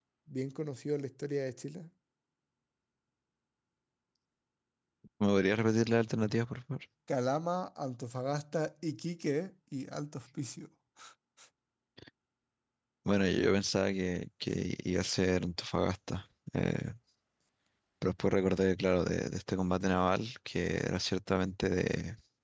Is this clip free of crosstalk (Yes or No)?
Yes